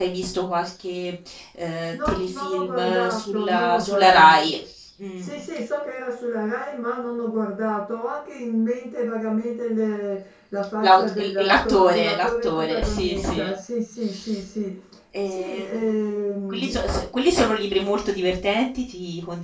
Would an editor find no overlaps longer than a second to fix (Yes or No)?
No